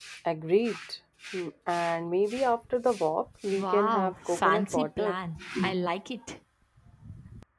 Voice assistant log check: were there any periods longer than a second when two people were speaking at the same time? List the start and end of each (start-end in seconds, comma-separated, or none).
3.5-5.2